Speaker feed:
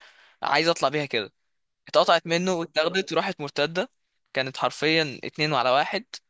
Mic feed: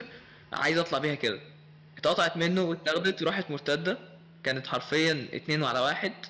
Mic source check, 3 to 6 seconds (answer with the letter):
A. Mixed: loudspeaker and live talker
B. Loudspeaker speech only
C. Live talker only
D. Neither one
B